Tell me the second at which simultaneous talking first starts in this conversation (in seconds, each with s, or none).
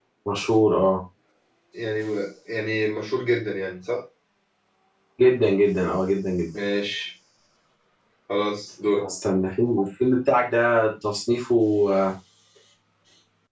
none